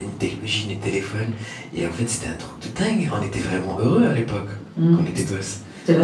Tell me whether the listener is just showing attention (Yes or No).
No